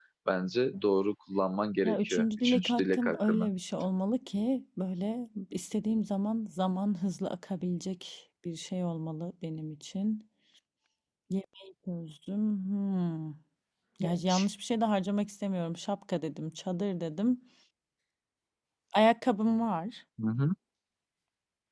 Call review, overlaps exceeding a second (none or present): present